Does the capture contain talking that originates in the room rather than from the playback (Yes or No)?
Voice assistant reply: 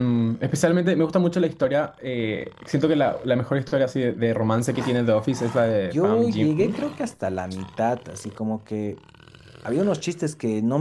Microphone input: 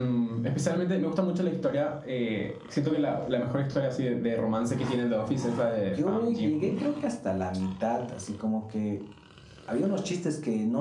No